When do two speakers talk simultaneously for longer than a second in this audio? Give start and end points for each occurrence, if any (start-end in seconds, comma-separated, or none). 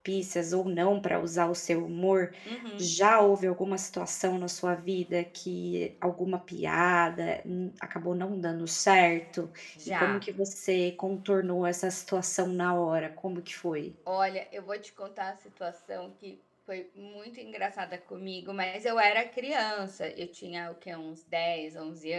none